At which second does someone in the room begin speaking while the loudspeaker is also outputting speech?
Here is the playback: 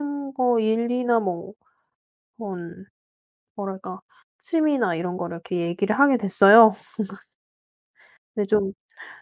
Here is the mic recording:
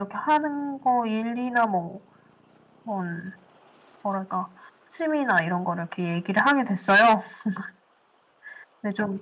none

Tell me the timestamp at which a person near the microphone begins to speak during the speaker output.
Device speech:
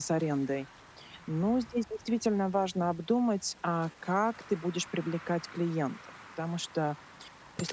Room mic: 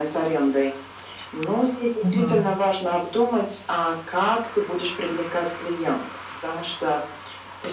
2 s

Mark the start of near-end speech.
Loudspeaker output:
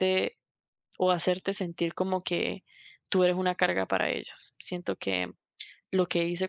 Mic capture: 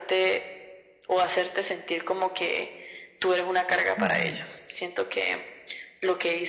4 s

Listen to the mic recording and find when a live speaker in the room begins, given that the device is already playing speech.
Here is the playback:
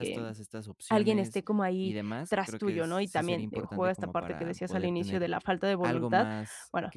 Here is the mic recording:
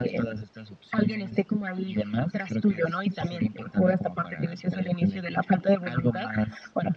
none

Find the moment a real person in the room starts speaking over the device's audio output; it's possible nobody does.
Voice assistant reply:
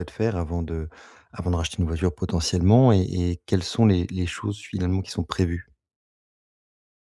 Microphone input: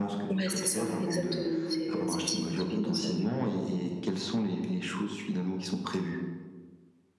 0 s

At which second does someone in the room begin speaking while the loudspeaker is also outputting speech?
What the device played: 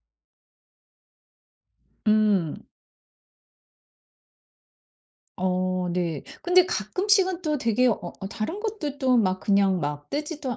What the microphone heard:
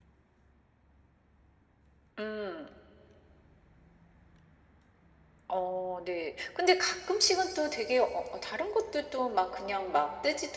none

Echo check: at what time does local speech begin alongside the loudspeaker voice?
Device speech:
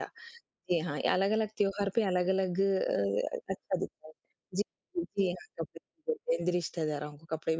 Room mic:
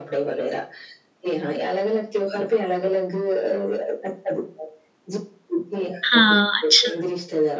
6 s

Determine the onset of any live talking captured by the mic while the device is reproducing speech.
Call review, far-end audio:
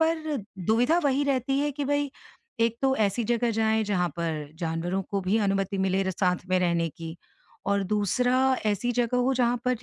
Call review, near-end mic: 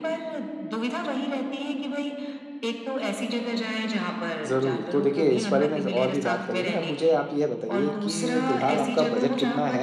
4 s

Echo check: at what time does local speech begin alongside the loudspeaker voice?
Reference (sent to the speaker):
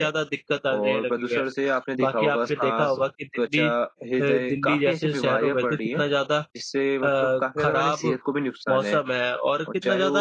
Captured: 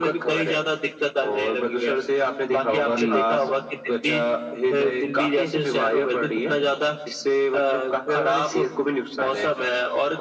3 s

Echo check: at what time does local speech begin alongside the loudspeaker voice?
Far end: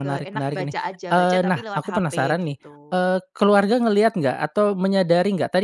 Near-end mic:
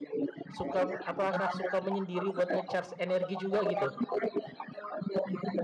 1 s

